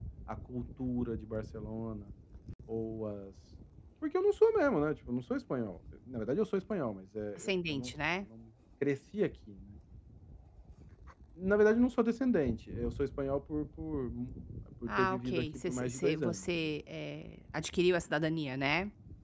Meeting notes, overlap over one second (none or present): present